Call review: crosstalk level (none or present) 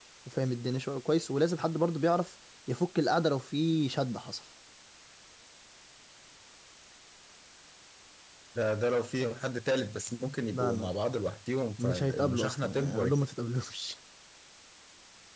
present